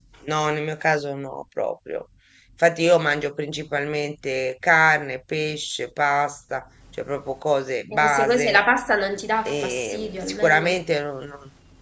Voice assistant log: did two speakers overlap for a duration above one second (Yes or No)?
Yes